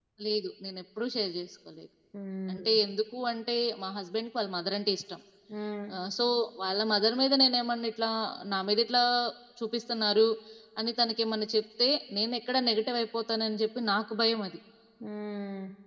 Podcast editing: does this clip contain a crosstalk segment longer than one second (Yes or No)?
No